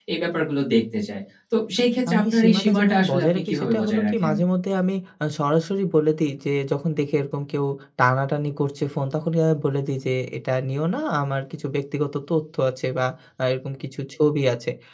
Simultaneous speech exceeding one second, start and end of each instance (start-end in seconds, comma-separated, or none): 2.1-4.3